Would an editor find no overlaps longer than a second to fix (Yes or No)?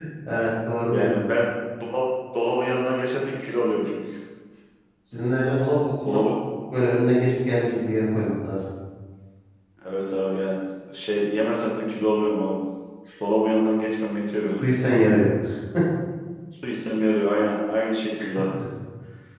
Yes